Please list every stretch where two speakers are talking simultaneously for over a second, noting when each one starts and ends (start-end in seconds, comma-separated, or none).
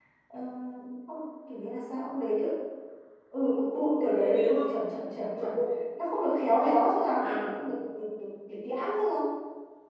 3.4-4.7